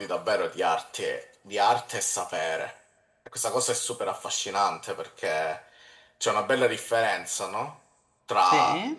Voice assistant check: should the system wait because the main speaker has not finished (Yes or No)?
Yes